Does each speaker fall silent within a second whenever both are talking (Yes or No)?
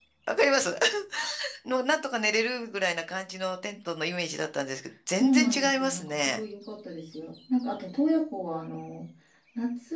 No